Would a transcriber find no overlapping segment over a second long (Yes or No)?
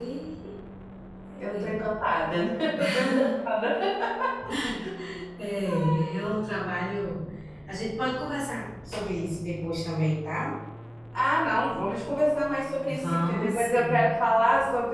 No